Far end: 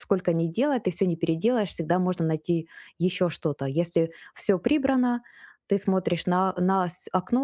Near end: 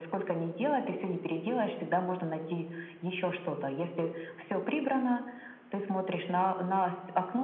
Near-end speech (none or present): none